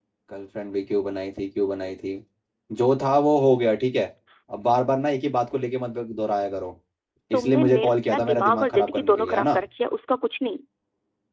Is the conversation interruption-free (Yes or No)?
No